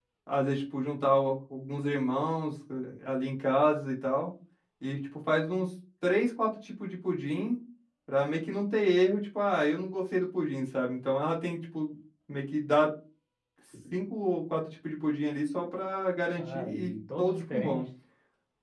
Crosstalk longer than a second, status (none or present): present